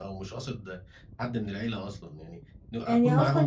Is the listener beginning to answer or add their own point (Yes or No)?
Yes